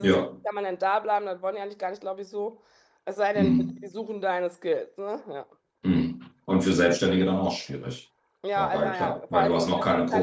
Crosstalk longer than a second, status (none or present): present